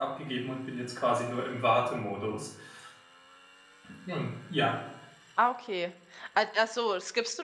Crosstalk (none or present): none